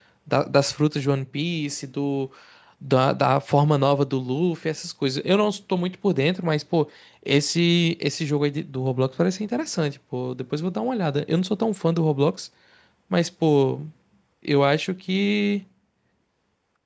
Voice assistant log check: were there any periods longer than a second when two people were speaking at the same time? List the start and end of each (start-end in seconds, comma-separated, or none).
none